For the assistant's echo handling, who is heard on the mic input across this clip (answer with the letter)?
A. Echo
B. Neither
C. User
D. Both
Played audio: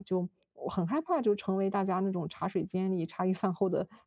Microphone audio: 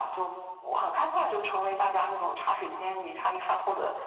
A